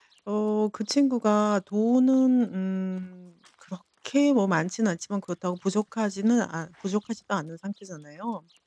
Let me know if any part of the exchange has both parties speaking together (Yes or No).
No